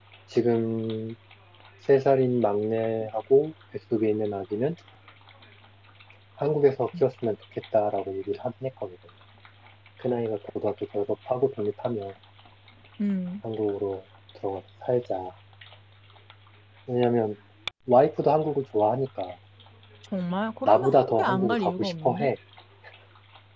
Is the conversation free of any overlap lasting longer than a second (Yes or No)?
No